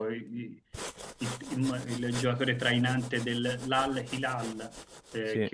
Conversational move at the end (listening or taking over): listening